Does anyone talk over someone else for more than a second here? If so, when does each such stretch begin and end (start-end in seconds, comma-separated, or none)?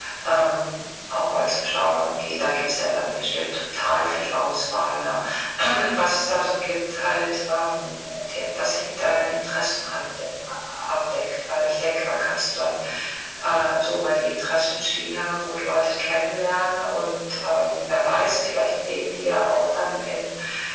none